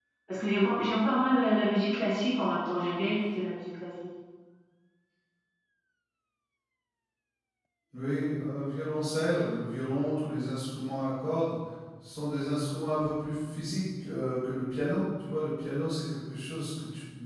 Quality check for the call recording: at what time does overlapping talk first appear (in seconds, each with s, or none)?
none